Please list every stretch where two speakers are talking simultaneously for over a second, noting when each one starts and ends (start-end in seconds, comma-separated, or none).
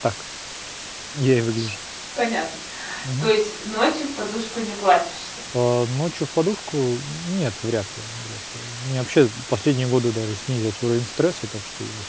none